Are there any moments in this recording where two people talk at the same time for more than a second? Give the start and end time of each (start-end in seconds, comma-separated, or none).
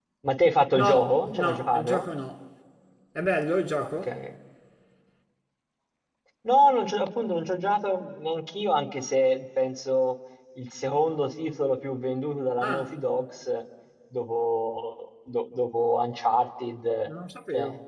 0.7-2.1